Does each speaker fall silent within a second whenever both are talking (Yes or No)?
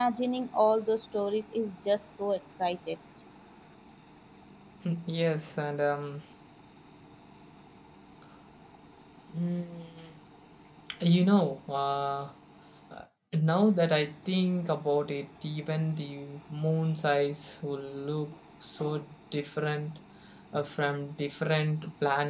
Yes